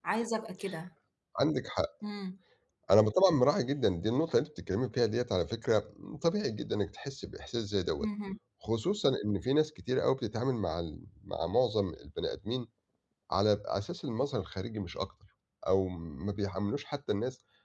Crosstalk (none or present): none